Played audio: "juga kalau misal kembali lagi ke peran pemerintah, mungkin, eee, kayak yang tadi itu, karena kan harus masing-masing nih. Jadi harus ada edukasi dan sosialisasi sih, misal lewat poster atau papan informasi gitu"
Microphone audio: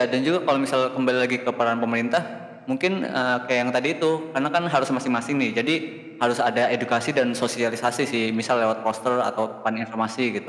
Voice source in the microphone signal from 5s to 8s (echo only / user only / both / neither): echo only